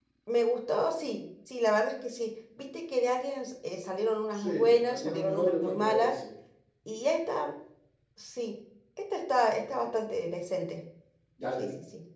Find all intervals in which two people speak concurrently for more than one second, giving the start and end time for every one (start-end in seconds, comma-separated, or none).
4.3-6.2